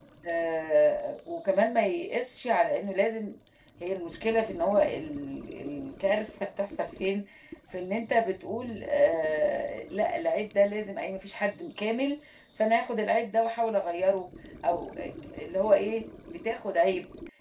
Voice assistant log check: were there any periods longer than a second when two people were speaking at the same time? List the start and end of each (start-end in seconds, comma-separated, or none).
none